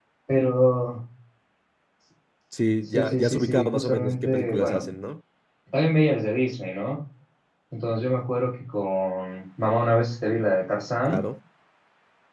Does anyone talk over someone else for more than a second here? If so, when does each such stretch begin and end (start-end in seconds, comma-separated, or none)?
2.9-4.9